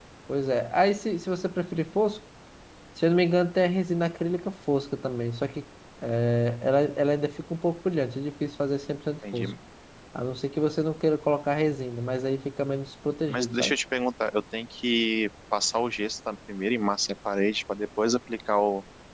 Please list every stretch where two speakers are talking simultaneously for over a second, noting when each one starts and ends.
none

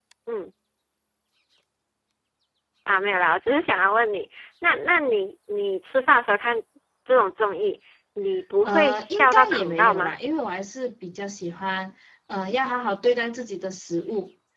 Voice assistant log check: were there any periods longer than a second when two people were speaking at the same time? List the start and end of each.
8.7-10.1

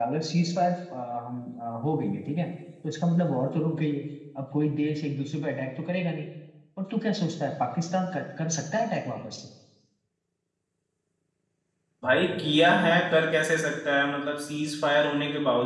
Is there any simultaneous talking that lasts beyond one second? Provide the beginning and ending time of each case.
none

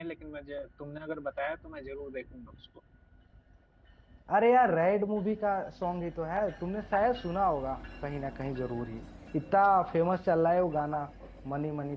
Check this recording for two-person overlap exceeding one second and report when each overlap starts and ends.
none

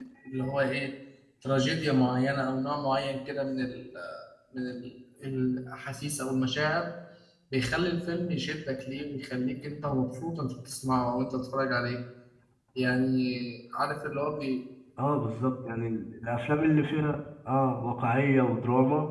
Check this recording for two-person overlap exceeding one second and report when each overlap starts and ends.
none

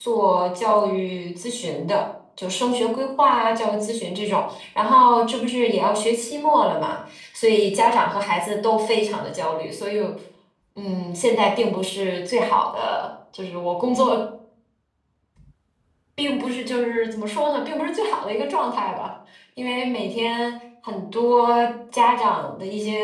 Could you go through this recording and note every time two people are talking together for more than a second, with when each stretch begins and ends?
none

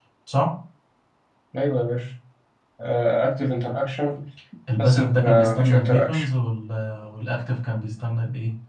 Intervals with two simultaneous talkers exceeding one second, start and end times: 4.8-6.3

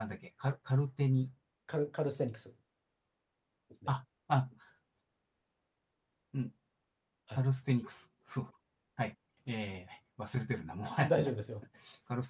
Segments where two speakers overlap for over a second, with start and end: none

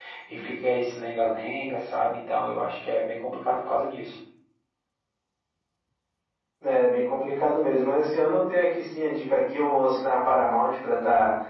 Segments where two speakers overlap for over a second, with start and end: none

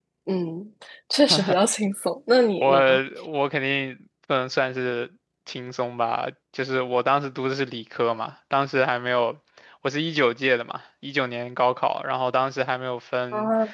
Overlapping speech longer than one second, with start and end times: none

